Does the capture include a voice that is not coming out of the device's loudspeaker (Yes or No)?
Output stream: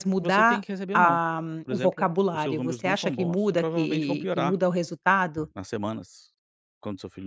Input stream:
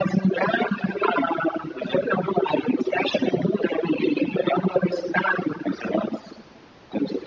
No